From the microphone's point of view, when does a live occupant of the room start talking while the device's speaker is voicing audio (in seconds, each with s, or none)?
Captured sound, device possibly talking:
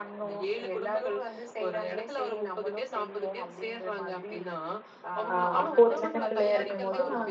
5.3 s